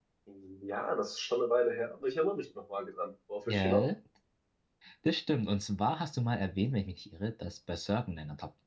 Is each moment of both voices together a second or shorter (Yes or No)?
Yes